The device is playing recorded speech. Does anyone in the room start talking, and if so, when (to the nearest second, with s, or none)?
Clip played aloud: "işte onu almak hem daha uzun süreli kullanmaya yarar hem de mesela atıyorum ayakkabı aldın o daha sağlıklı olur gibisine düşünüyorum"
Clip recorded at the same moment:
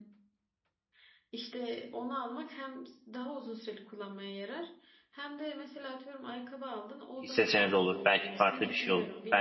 7 s